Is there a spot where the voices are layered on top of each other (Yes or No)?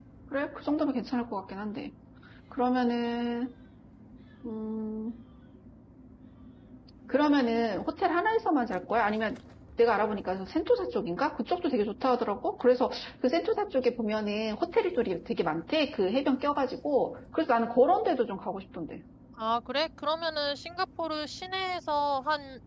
No